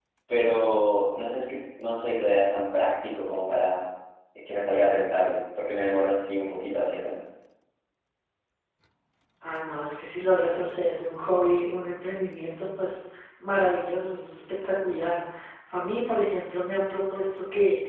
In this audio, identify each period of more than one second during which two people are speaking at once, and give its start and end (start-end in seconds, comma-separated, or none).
none